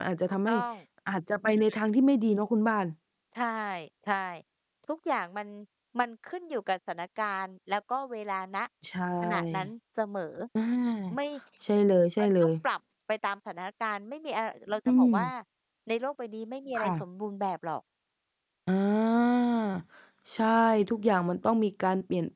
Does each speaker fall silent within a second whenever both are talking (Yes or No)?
Yes